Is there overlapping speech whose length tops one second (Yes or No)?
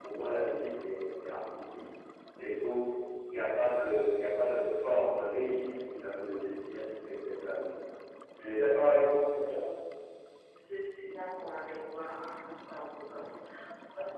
No